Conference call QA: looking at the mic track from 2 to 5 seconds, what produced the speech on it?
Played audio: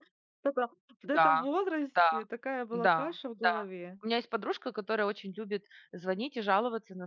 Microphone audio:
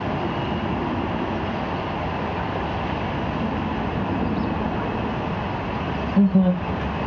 neither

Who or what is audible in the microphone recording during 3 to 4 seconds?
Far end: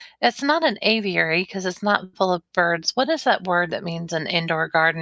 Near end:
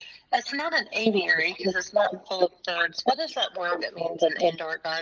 echo only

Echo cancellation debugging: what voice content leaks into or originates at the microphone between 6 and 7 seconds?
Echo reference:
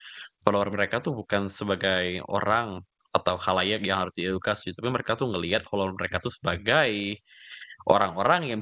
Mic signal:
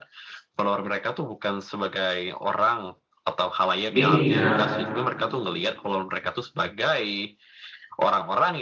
echo only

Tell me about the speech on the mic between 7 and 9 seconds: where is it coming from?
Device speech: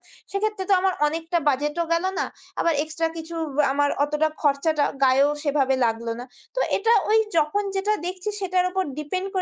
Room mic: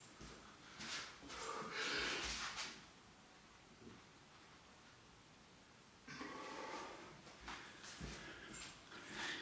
neither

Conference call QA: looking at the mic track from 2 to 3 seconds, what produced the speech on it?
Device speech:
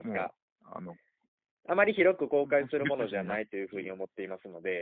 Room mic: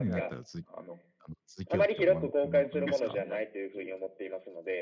both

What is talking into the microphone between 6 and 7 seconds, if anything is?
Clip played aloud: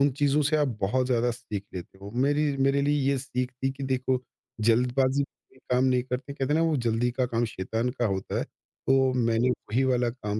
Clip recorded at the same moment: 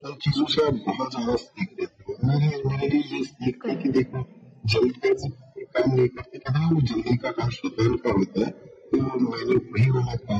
echo only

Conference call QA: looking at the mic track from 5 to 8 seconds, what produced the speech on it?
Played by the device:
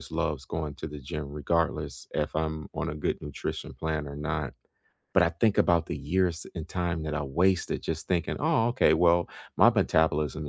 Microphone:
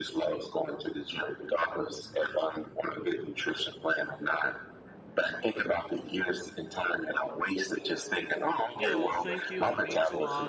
echo only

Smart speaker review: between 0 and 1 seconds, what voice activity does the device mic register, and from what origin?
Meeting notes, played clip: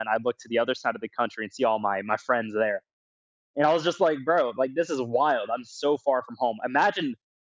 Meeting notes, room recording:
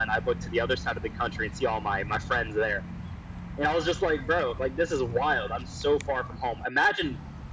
echo only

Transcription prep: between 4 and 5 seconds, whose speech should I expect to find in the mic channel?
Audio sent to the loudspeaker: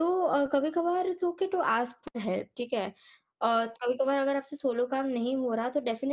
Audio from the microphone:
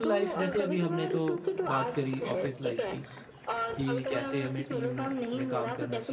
both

